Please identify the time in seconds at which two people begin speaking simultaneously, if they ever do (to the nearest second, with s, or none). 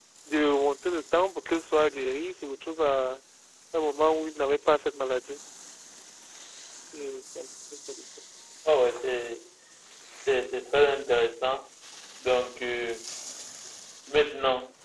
none